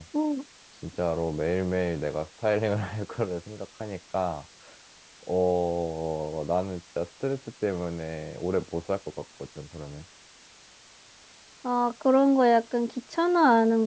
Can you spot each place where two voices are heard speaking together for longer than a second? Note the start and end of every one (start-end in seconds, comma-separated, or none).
none